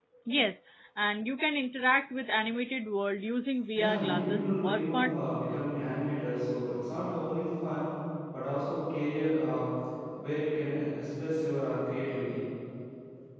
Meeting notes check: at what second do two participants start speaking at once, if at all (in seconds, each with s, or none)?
3.8 s